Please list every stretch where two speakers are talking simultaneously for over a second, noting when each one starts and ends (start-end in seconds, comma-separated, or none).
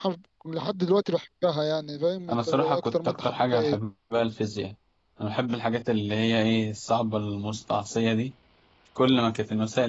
2.3-3.8